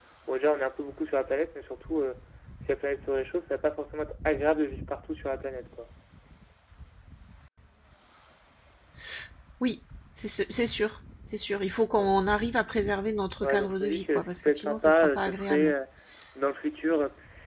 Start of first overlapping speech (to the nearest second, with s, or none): 13 s